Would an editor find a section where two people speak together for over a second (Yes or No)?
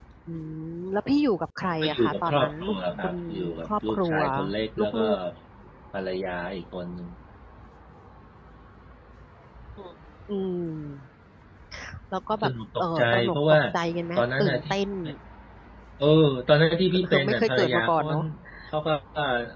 Yes